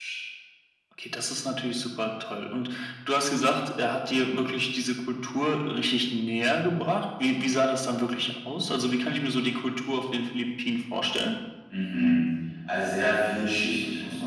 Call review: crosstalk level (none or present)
none